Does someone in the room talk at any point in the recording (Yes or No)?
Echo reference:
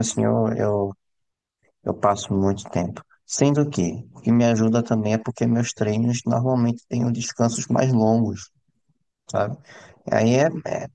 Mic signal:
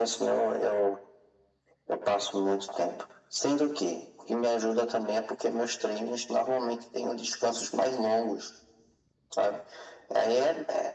No